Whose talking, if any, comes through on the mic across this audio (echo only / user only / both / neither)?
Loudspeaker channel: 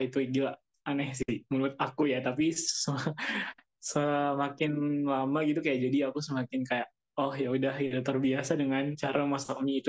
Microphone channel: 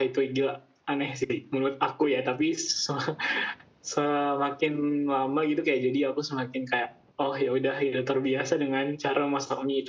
echo only